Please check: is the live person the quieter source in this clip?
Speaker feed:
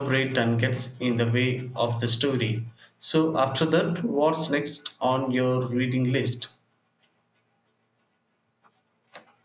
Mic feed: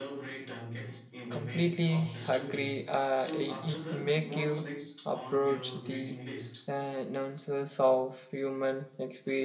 No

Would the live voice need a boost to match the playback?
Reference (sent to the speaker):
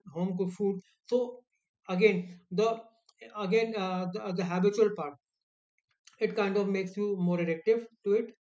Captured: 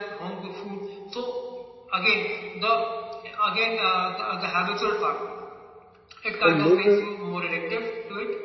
No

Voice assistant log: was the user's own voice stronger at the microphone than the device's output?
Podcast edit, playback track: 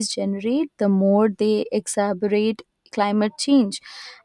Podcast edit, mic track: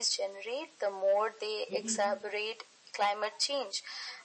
No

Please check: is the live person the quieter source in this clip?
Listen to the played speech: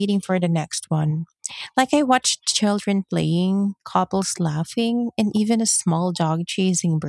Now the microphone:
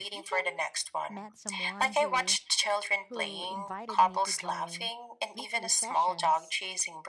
Yes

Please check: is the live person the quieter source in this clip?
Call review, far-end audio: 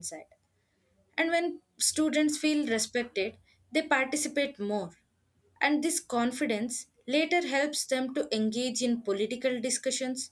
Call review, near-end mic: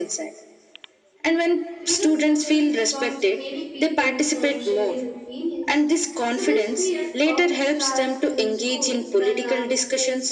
Yes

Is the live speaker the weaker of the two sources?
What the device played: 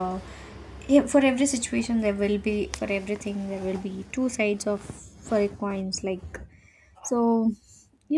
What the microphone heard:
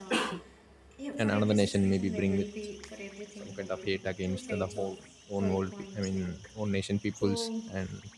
No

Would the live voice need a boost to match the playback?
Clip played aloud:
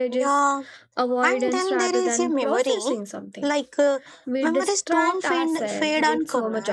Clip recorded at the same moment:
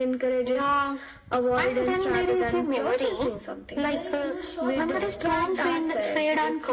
Yes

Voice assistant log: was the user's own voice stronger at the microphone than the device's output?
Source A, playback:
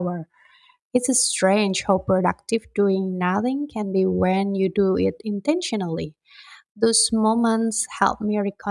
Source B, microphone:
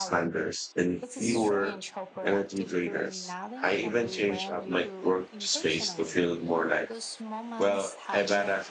Yes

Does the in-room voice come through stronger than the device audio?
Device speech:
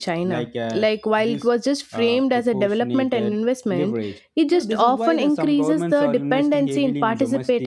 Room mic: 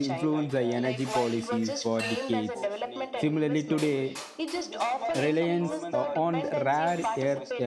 Yes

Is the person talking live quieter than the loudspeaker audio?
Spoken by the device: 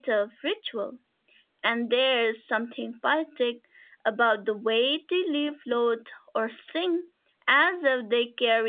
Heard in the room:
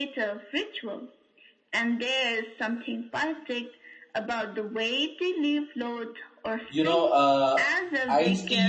No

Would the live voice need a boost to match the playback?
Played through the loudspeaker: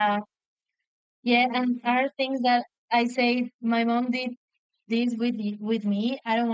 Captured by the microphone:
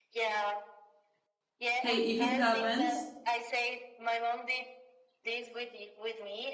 No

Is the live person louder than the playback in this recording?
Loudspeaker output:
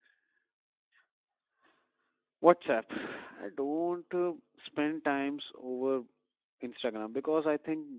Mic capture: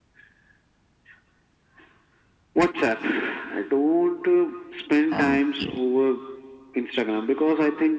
No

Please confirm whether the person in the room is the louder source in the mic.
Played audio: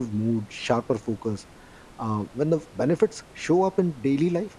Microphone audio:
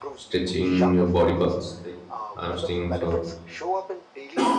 Yes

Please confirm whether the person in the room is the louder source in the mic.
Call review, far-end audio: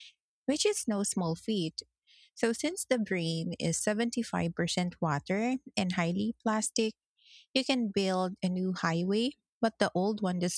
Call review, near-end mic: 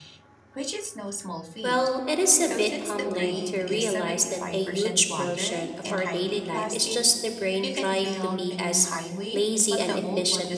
Yes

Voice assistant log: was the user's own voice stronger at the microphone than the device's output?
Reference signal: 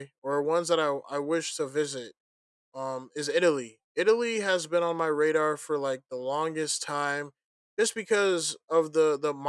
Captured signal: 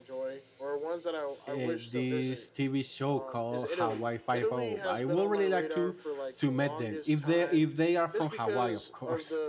Yes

